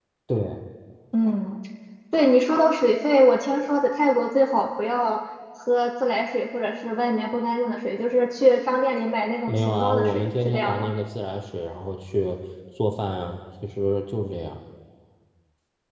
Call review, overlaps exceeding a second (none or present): present